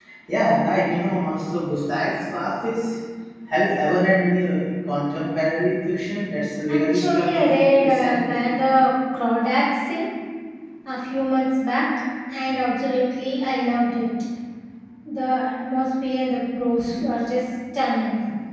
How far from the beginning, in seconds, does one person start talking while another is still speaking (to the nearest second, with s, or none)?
7 s